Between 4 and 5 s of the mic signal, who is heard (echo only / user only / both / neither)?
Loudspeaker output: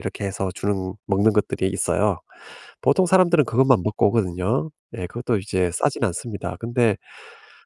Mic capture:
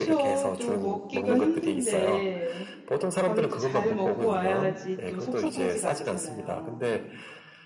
both